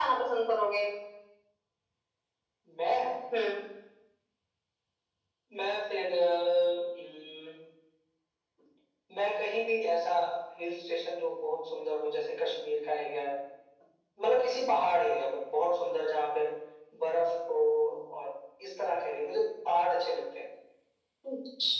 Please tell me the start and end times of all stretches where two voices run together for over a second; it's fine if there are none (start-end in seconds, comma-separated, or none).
none